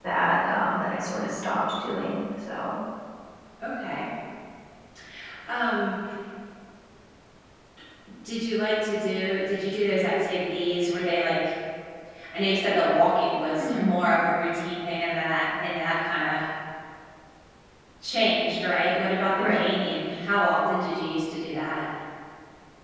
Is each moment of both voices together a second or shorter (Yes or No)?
Yes